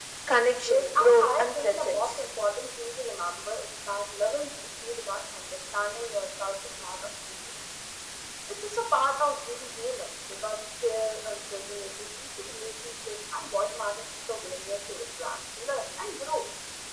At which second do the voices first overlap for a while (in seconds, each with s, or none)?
0.6 s